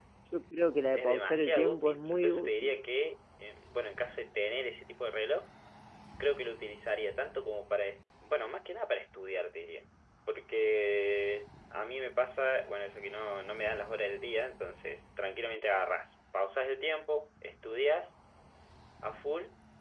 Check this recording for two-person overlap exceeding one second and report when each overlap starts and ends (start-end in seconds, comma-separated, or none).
0.9-2.8